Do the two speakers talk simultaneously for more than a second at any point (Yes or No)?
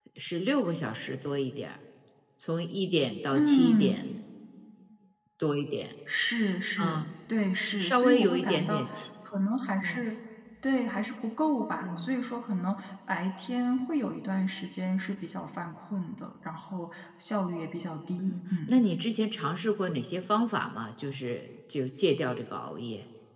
Yes